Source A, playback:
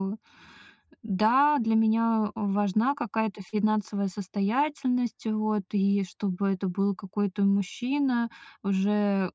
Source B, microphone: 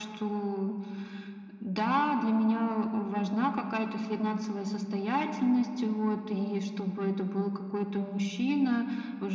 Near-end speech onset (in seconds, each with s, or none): none